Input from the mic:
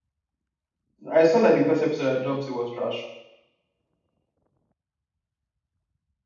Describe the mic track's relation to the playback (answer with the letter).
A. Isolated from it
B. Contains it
A